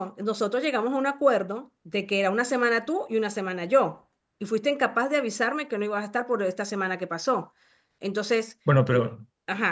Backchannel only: Yes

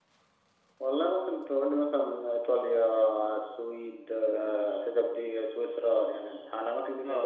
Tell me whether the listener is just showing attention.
No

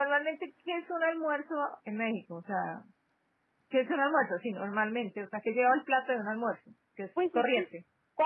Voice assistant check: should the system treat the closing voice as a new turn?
Yes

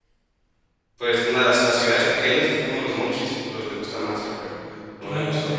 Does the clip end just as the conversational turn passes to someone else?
Yes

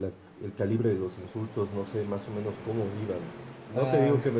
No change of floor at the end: Yes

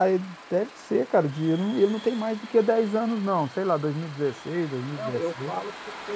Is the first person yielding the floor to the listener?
Yes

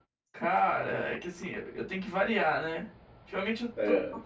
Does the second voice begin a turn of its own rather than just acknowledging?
No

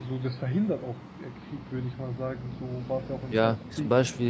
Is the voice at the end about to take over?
Yes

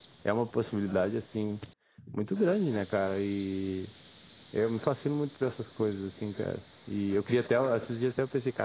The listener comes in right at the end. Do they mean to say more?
No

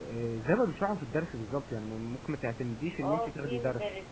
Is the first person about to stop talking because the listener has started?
Yes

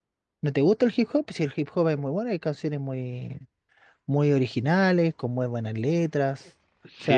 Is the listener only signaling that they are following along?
No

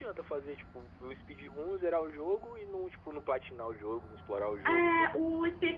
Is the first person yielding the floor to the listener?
Yes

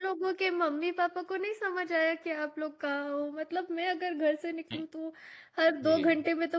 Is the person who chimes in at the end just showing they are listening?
Yes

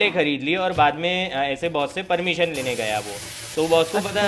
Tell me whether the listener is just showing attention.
Yes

